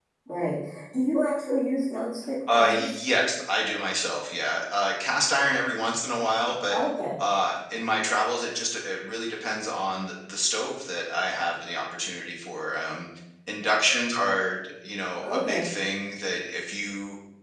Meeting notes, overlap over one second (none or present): none